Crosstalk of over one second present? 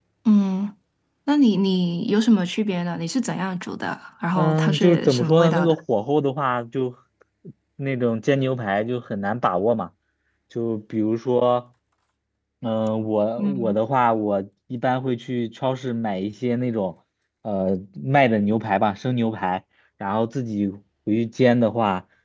Yes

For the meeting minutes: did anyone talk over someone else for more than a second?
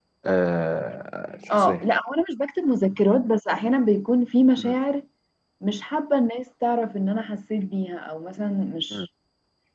No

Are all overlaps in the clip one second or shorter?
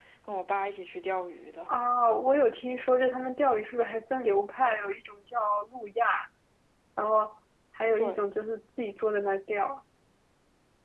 Yes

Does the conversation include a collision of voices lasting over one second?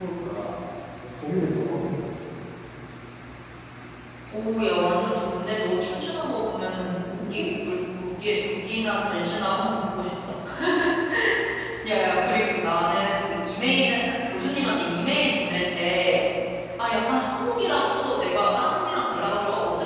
No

